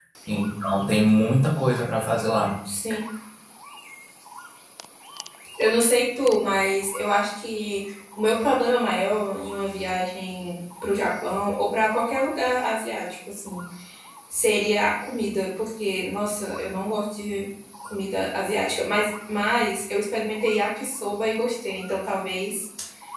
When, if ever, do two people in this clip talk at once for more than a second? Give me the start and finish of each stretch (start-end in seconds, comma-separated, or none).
none